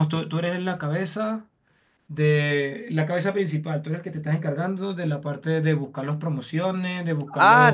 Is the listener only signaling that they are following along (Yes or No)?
No